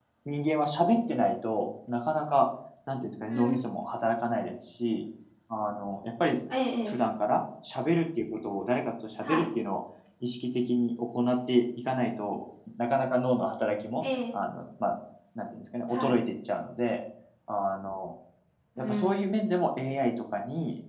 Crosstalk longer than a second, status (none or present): none